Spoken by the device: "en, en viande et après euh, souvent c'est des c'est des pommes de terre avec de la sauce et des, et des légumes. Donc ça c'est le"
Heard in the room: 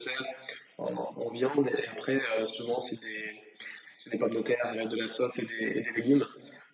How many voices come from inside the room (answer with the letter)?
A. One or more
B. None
B